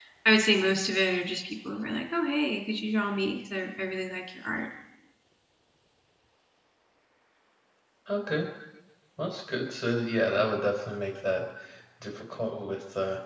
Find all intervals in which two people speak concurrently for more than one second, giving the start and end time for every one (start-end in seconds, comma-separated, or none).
none